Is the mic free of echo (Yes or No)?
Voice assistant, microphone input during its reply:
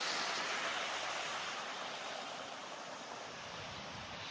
Yes